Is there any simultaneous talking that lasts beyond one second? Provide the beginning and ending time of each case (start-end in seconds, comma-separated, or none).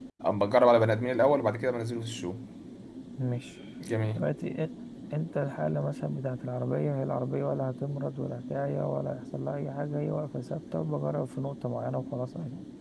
none